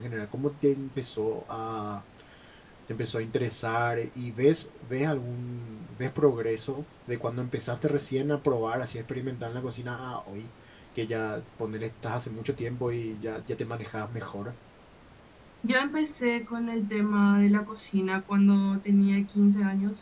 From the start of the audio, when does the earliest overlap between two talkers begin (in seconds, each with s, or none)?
none